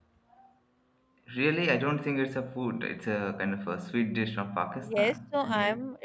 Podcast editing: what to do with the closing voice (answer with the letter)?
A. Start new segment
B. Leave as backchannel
A